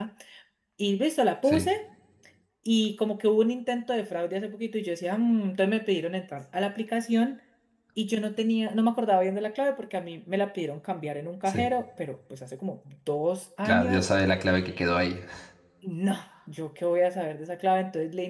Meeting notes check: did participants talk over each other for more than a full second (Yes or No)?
No